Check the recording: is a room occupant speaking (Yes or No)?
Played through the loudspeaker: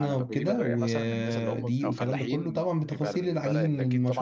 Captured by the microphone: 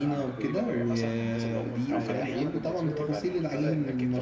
Yes